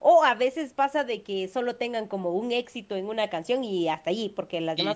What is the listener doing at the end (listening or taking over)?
listening